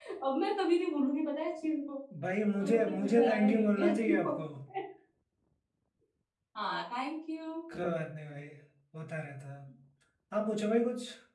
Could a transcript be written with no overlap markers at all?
No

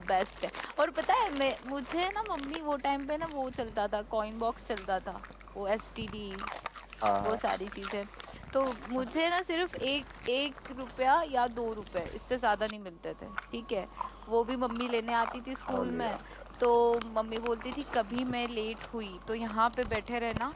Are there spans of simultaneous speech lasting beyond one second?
No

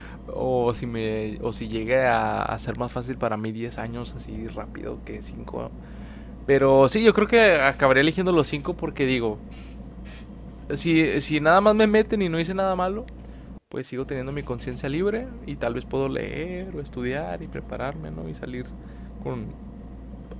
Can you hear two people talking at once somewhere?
No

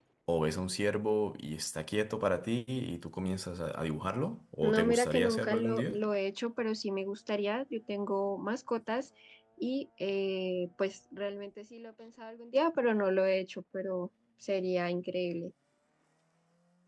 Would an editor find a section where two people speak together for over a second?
Yes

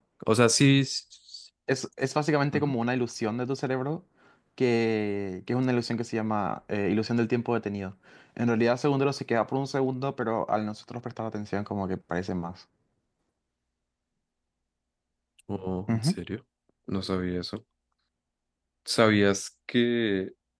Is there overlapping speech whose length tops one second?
No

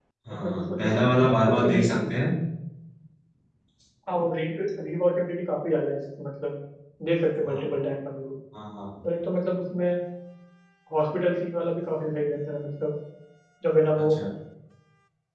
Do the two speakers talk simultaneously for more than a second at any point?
Yes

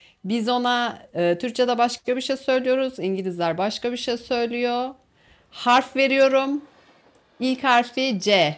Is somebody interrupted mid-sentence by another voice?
No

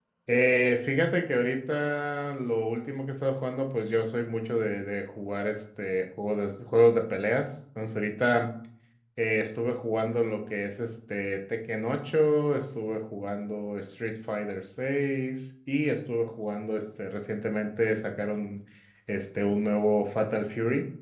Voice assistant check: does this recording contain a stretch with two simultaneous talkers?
No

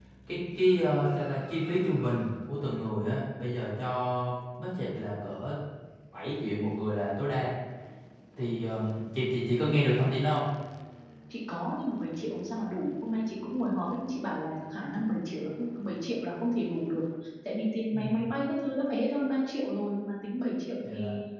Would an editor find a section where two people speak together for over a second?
No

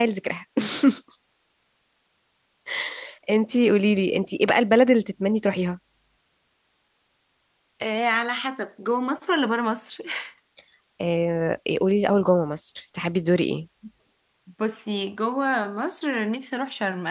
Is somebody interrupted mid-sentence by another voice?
No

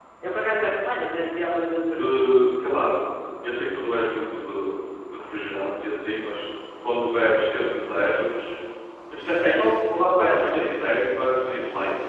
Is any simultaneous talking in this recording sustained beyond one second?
No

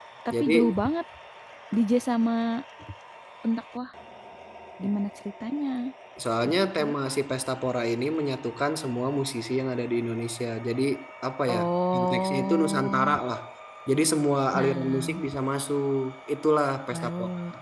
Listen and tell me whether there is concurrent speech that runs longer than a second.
Yes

